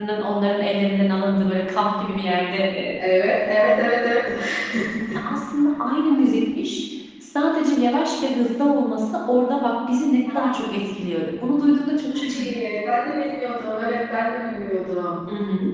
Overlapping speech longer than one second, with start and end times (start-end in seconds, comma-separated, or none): none